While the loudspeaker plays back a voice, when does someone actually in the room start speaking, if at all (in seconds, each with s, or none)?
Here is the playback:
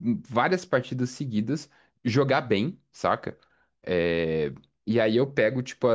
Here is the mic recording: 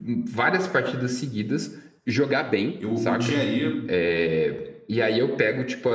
2.8 s